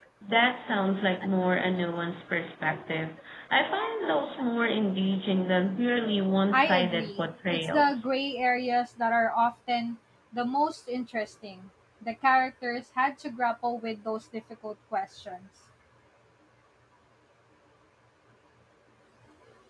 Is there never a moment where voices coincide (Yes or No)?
No